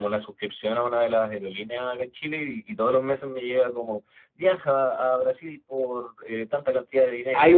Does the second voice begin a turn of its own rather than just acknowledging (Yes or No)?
Yes